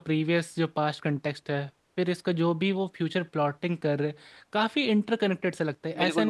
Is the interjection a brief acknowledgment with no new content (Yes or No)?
Yes